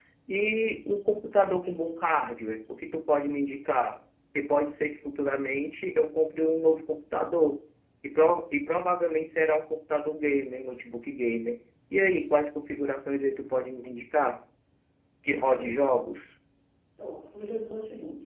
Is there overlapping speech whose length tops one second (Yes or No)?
No